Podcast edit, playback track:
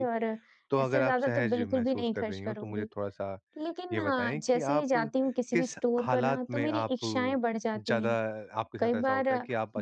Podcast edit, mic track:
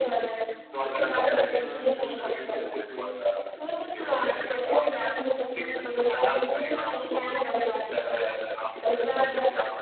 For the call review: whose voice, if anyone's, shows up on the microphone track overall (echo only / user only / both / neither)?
both